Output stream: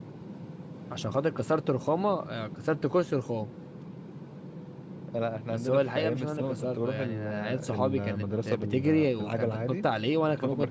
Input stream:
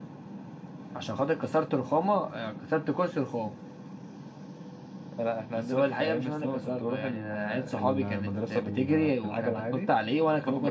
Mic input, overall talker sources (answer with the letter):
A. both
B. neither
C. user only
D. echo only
D